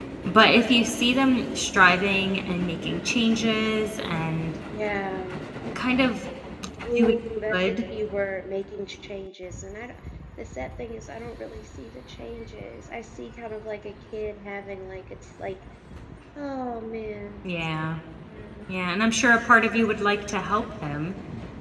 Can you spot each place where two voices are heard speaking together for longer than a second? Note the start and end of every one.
none

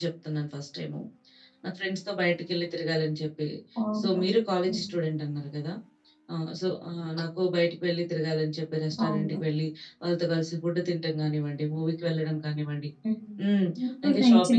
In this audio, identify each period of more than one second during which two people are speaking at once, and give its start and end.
none

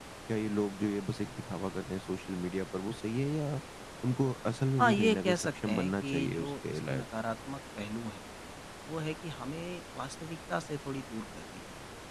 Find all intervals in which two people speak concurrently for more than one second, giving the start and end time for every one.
4.8-7.0

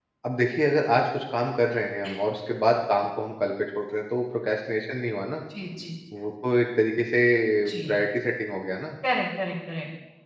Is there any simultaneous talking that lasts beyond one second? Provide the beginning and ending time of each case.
none

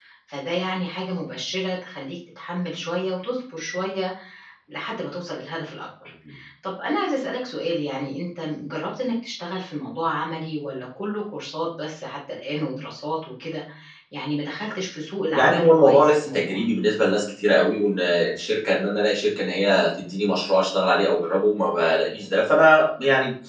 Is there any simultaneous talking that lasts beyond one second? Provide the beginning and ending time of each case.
15.3-16.6

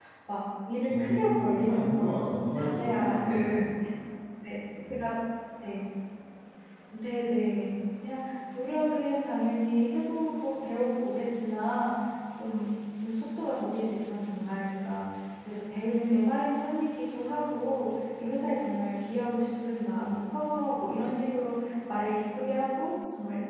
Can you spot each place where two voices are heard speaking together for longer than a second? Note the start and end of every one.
0.9-3.7

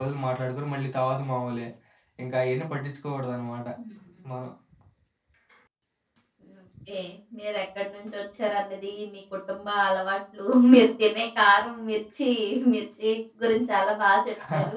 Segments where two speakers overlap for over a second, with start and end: none

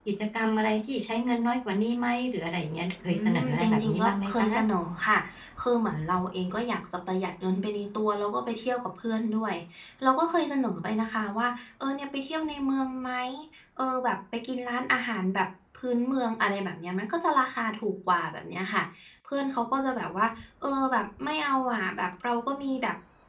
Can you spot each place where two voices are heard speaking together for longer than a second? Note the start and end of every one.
3.1-4.5

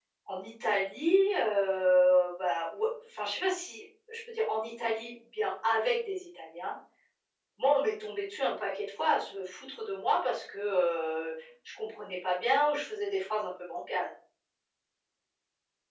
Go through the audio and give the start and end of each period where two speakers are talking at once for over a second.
none

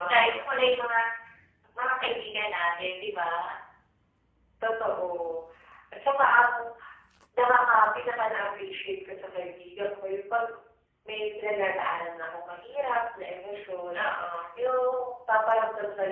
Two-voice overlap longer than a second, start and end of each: none

